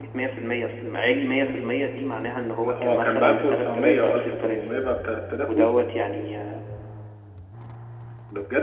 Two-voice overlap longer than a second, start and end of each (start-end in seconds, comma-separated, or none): 2.6-4.6